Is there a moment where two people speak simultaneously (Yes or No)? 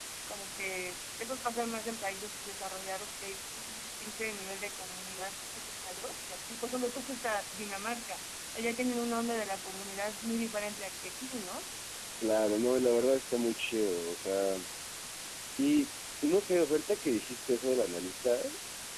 No